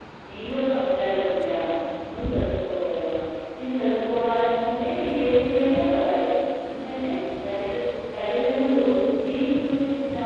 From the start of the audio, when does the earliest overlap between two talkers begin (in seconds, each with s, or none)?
none